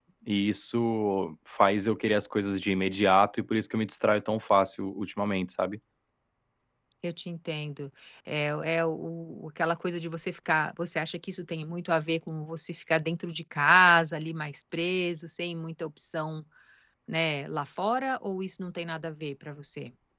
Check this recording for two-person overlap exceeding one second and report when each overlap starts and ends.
none

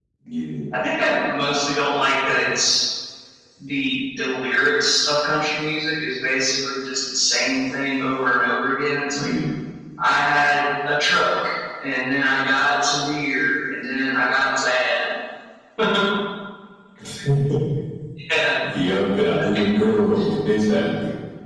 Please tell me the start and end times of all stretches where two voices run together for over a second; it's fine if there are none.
none

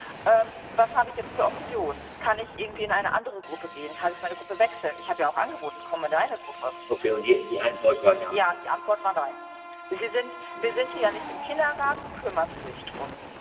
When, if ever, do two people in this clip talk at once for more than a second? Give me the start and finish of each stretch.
none

